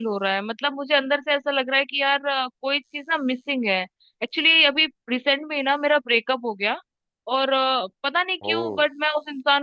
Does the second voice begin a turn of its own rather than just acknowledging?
No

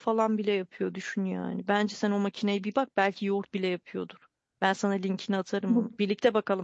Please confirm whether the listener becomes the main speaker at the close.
No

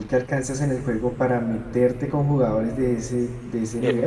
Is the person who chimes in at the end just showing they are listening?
No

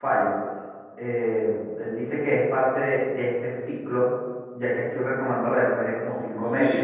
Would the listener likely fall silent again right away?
No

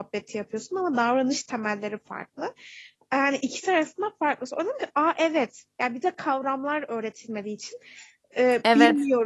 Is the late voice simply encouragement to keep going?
Yes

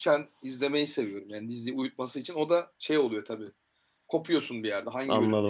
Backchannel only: No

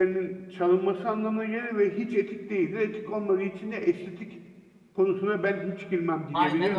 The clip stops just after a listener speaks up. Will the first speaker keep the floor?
No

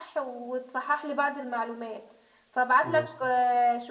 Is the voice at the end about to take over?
No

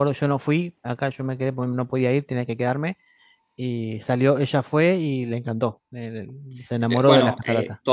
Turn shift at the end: Yes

